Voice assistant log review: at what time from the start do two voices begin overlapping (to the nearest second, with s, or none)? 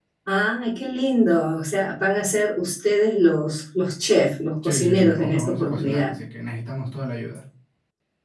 5 s